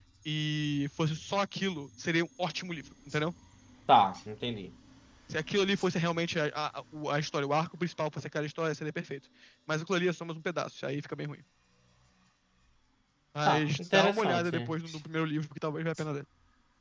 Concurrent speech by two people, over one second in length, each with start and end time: 13.5-14.7

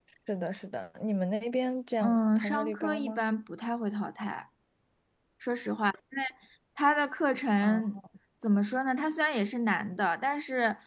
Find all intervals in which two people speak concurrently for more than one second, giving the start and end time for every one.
2.0-3.2

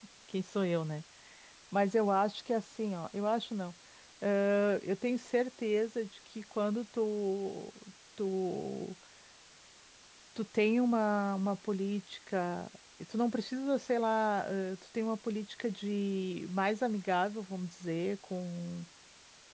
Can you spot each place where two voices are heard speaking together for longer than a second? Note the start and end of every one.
none

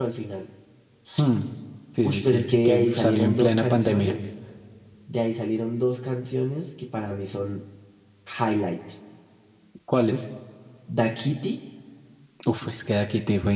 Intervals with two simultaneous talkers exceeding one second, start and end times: 2.0-4.1

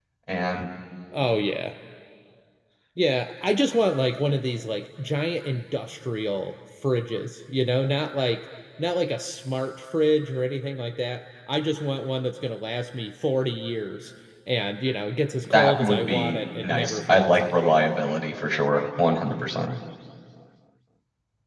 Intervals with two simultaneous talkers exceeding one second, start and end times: 15.5-17.6

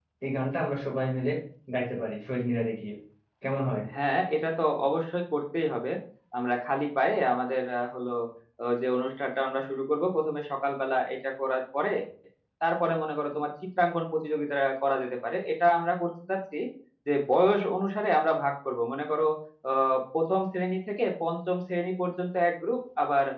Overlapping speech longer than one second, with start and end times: none

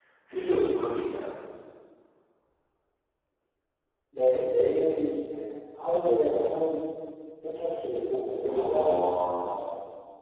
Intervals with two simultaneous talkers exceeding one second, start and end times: 8.5-9.7

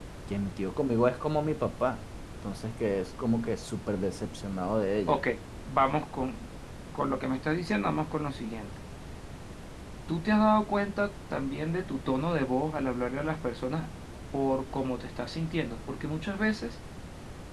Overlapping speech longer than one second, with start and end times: none

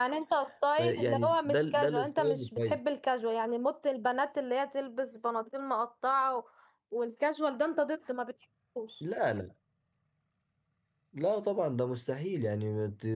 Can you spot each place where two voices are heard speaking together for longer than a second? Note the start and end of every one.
0.8-2.8

